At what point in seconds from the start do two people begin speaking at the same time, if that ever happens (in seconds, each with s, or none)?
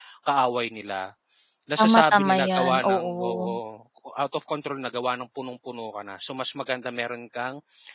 1.8 s